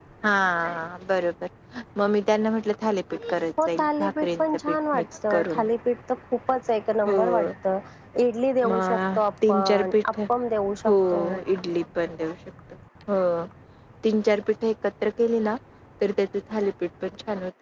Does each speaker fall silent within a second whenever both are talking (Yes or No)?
No